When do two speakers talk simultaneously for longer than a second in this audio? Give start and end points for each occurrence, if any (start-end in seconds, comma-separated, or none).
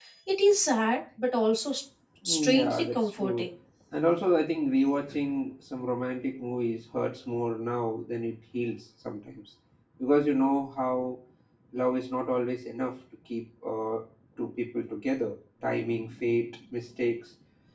2.2-3.5